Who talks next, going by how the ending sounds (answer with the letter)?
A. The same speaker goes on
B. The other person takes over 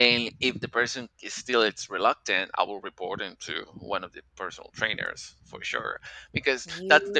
A